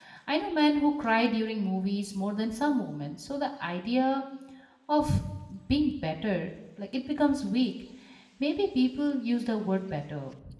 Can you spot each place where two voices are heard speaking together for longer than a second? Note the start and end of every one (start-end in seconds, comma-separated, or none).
none